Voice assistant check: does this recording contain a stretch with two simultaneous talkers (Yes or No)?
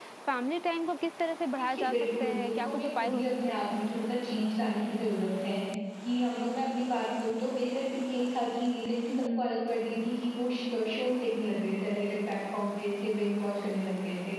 Yes